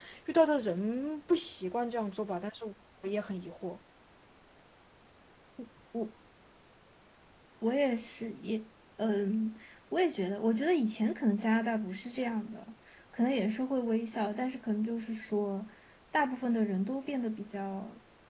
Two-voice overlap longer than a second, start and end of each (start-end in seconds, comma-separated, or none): none